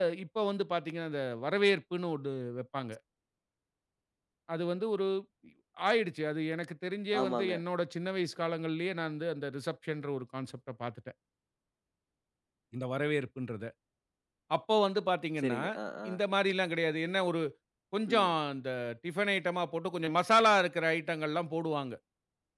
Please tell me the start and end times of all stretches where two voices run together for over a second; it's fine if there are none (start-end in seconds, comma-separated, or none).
none